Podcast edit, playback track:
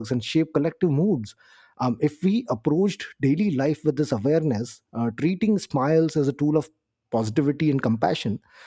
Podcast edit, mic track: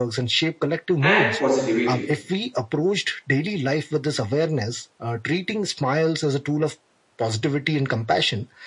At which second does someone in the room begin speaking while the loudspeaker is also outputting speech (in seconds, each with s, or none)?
1.0 s